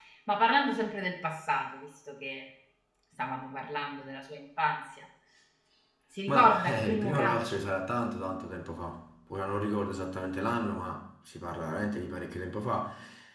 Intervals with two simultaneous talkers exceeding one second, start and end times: 6.3-7.7

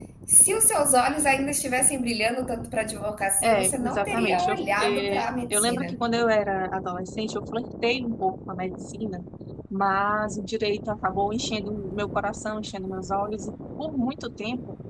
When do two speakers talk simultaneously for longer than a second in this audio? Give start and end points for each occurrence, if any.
3.4-6.0

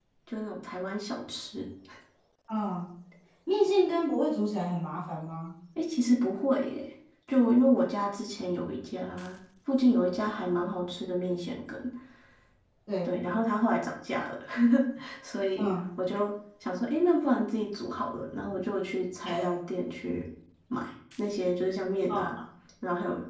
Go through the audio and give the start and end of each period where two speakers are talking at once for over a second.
none

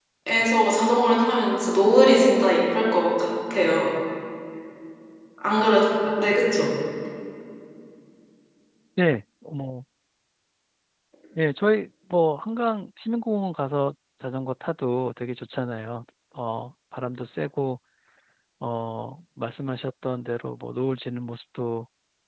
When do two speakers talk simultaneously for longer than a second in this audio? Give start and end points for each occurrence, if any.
none

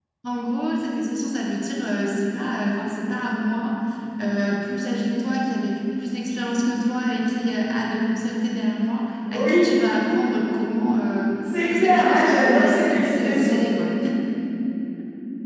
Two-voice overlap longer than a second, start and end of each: 11.6-13.7

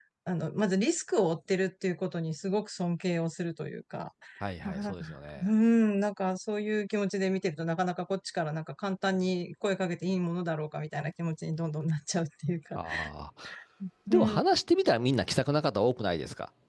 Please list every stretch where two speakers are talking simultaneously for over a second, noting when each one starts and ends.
none

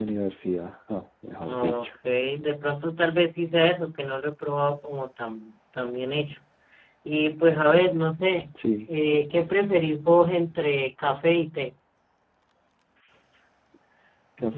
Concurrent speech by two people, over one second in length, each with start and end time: none

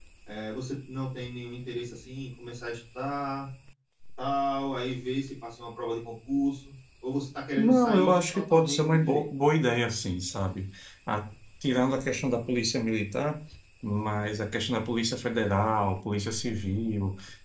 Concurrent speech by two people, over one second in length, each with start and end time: 7.6-9.3

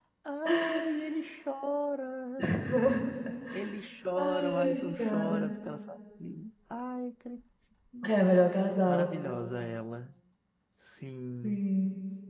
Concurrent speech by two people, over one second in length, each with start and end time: 4.2-5.5

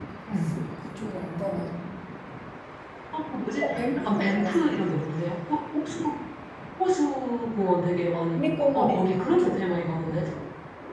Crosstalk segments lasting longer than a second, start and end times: 3.6-4.8, 8.4-9.7

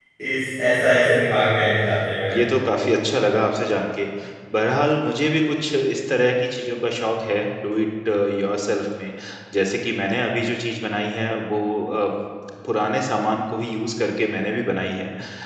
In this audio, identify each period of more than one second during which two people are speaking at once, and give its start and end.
none

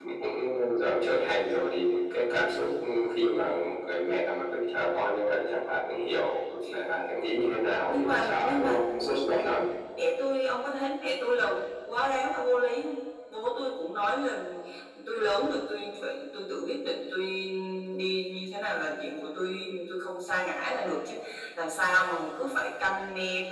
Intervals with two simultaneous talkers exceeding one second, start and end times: 7.9-9.5

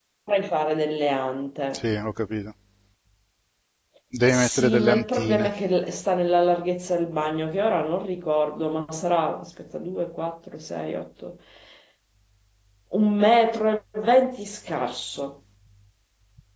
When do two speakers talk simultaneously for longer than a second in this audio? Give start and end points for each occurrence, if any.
4.3-5.5

